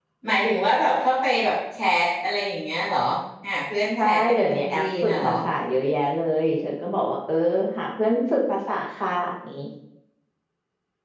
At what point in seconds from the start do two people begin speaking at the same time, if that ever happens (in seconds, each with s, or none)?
4.0 s